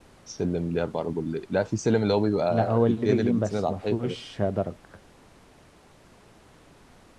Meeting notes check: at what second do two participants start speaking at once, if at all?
2.5 s

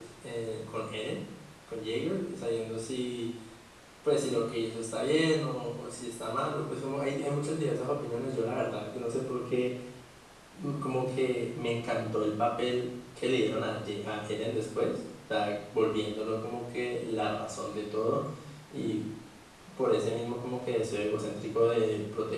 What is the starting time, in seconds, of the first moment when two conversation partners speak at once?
none

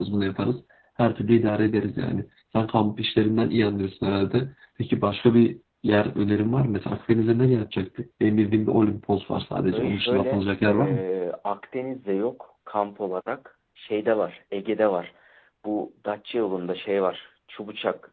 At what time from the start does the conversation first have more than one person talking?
9.7 s

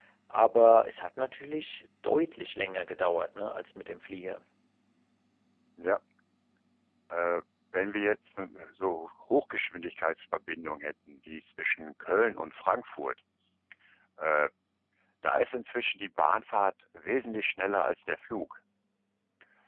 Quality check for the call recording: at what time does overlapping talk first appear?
none

